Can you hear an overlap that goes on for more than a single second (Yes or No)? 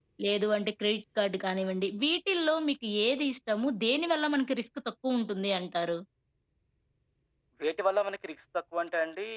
No